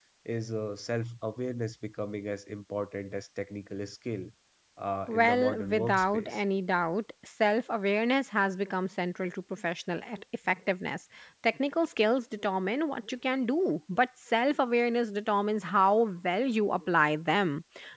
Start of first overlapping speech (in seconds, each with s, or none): 5.1 s